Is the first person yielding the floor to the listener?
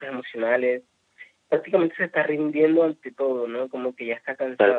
Yes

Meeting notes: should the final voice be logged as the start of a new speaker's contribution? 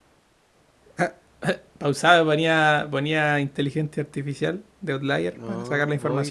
Yes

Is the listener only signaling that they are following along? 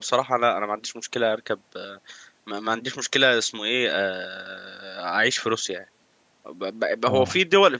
Yes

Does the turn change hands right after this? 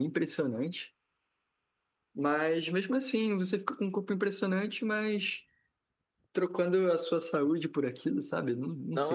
Yes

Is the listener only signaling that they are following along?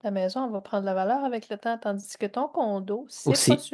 No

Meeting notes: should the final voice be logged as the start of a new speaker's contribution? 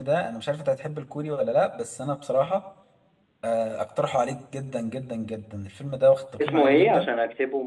Yes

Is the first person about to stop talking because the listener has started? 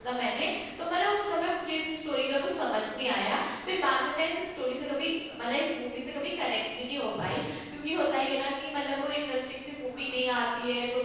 No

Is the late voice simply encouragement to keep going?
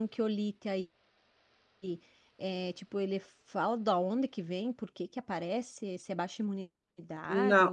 No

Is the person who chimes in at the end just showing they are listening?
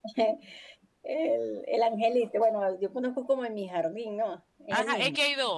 No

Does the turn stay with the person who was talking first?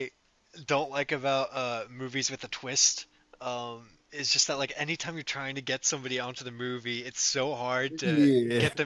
Yes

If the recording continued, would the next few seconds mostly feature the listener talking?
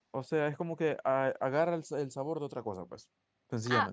Yes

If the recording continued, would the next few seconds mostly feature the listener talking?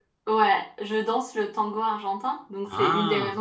No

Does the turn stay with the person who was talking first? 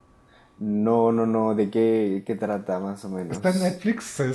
No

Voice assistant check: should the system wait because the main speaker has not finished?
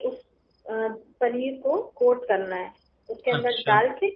Yes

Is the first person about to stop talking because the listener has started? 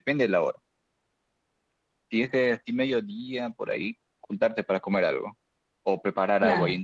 No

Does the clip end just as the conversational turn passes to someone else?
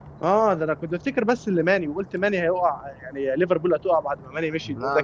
No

